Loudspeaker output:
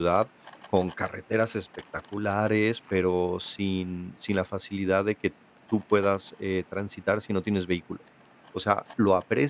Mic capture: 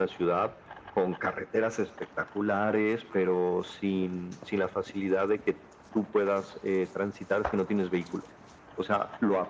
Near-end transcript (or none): none